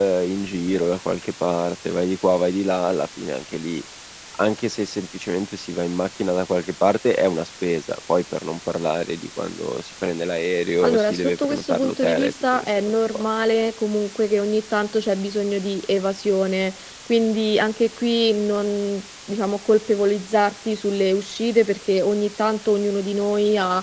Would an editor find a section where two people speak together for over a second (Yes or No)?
Yes